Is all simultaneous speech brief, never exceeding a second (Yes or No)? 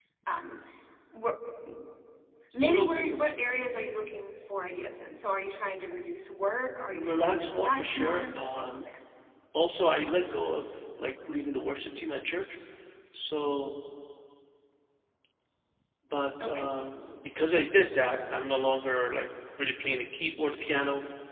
No